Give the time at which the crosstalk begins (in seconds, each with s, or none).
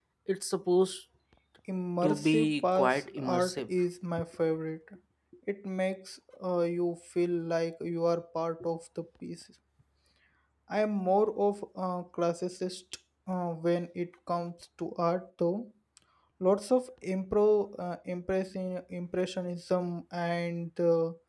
2.0 s